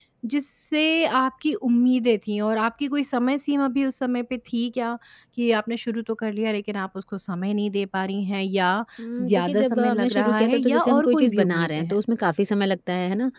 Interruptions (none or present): present